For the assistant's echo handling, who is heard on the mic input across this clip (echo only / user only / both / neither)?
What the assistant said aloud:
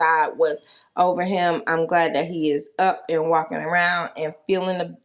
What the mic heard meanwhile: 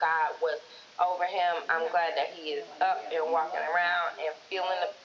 both